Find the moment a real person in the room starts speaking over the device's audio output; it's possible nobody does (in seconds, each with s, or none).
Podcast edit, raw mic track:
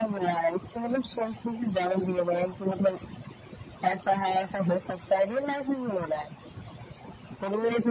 none